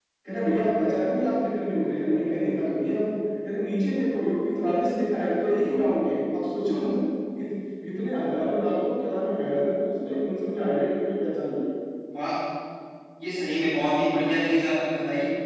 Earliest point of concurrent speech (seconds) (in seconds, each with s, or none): none